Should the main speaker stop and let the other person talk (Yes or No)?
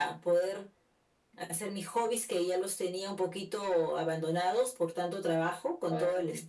No